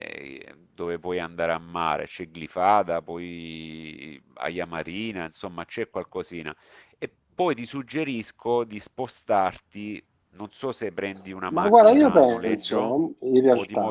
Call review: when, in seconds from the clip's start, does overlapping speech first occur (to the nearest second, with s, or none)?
11 s